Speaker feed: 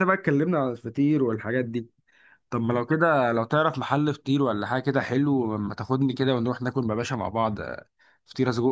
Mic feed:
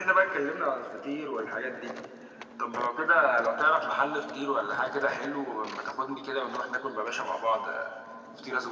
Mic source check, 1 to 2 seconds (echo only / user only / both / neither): echo only